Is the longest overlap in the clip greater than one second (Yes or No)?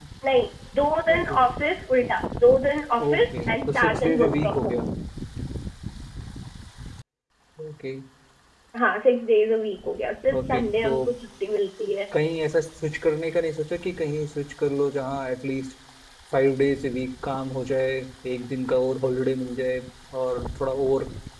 Yes